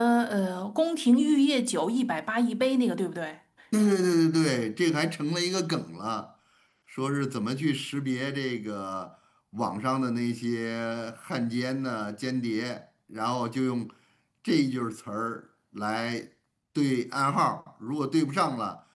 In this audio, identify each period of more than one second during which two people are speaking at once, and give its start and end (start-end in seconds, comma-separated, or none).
none